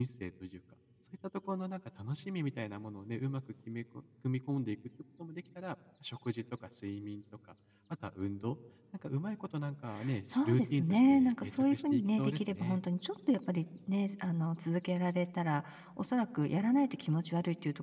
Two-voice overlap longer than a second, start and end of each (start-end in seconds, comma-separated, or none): 10.3-12.8